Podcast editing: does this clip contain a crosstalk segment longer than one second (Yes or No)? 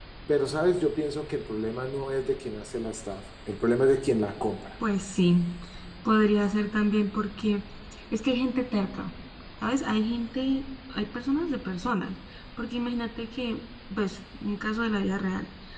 No